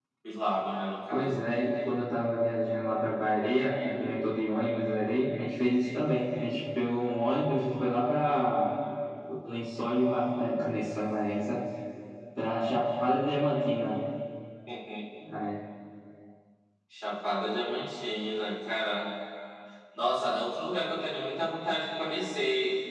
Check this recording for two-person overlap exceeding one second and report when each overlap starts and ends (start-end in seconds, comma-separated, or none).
none